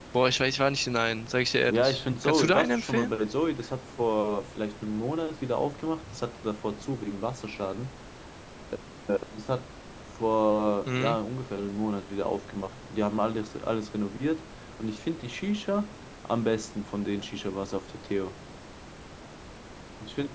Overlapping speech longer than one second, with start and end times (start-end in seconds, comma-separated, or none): 1.7-3.1